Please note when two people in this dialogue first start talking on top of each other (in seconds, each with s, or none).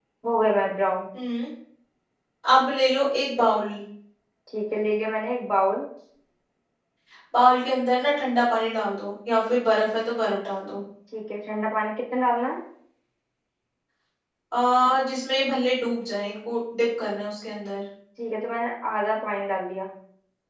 none